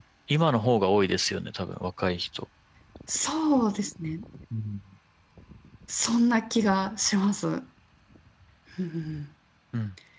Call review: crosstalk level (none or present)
none